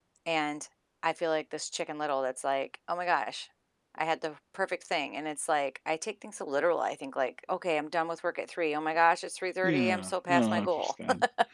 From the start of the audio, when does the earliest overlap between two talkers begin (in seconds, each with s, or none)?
9.6 s